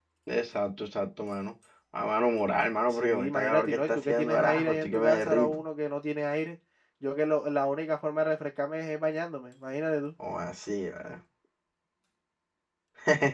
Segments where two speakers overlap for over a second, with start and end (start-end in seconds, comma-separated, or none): 2.9-5.6